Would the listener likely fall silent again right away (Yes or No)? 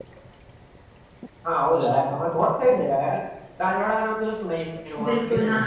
No